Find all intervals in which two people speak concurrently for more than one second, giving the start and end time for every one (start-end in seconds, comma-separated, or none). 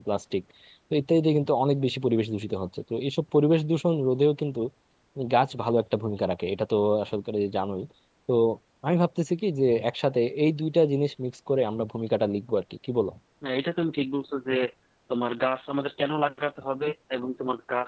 none